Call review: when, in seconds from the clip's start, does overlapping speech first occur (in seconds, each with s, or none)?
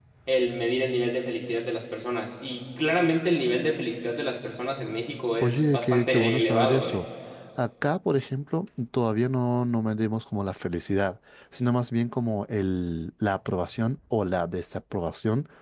5.4 s